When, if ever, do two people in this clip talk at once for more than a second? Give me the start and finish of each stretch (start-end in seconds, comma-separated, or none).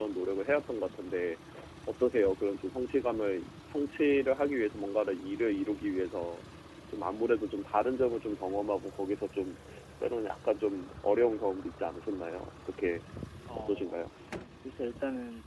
none